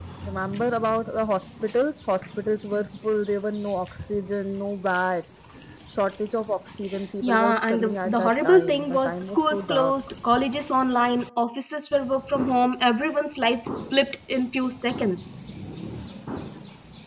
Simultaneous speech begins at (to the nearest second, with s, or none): 7 s